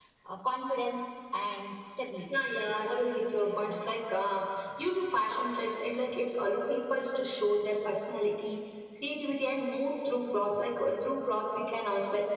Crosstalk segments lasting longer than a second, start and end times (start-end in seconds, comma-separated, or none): 2.5-4.0